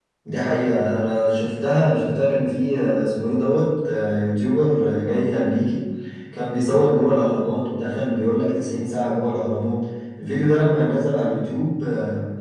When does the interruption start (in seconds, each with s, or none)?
none